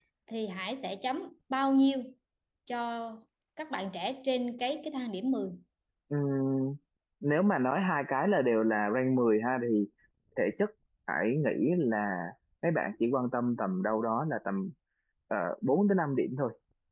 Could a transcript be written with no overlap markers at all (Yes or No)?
Yes